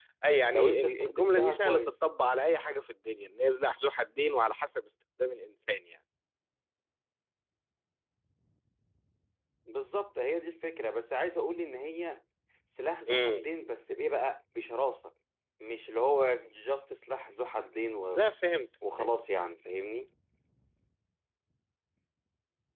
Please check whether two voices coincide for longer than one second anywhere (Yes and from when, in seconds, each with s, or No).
Yes, from 0.5 s